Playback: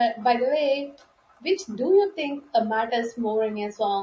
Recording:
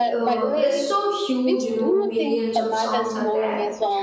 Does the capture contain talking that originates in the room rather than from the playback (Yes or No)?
Yes